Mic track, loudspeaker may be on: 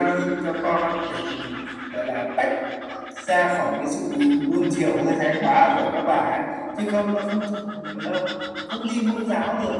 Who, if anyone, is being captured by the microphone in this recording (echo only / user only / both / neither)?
echo only